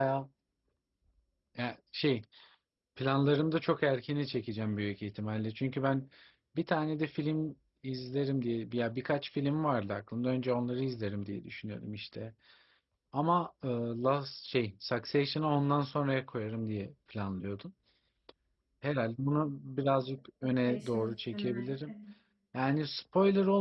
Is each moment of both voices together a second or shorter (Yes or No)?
No